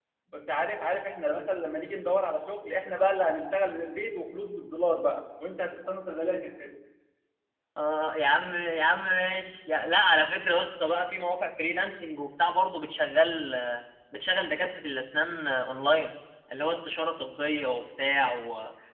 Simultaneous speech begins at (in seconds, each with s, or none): none